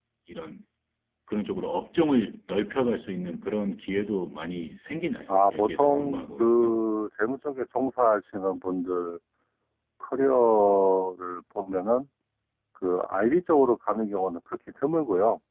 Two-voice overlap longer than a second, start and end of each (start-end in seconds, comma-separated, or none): 5.3-6.7